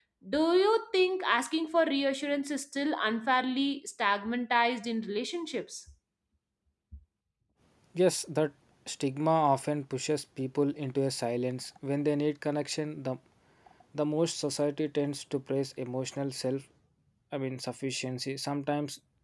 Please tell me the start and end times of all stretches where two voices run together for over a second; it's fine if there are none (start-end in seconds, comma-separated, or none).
none